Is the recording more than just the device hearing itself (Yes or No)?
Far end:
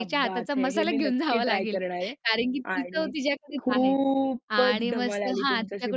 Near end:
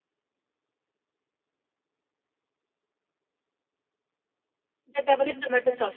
Yes